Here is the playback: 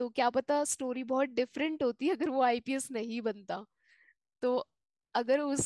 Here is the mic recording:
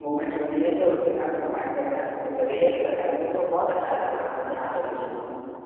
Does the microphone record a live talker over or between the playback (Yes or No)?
Yes